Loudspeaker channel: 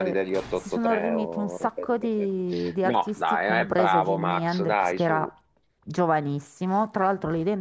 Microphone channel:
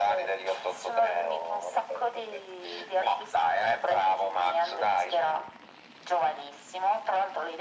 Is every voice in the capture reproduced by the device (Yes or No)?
Yes